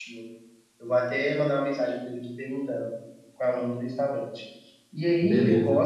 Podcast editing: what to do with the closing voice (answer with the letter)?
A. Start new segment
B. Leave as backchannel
B